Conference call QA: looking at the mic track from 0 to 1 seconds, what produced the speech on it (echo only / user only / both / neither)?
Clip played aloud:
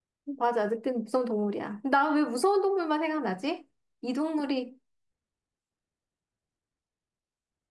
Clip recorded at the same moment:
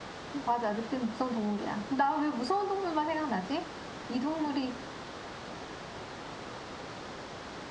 echo only